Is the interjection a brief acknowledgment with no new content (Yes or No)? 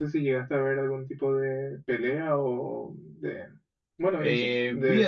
No